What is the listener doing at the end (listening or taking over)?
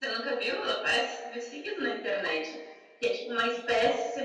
listening